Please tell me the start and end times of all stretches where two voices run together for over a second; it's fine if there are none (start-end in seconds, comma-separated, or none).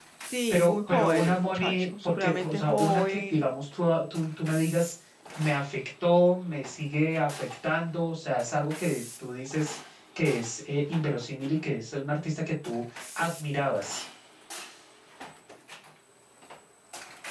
0.5-3.4